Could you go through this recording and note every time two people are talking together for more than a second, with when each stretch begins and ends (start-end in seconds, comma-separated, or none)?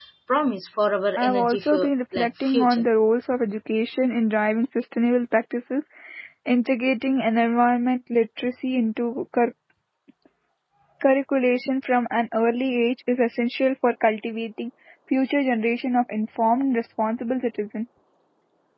1.2-2.9